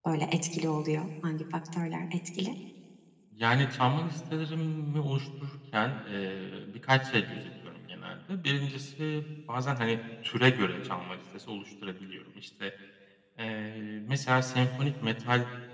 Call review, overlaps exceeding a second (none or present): none